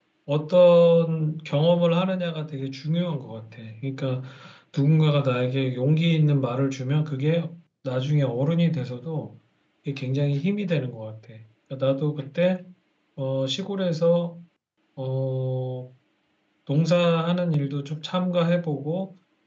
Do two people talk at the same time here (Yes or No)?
No